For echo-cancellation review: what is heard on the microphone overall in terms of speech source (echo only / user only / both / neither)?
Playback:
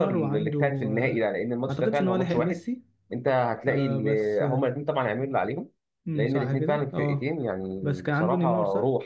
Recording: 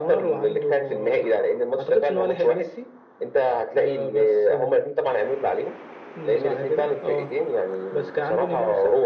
echo only